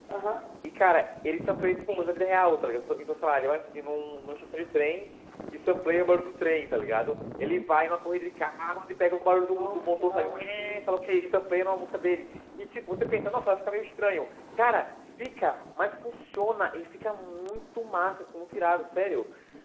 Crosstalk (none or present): present